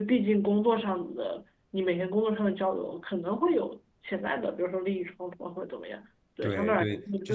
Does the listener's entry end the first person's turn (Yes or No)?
Yes